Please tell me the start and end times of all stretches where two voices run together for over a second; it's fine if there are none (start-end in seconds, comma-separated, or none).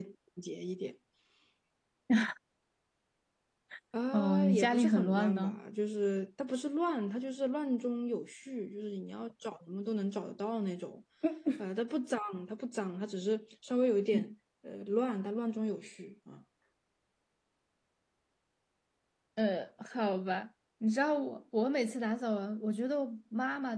4.1-5.6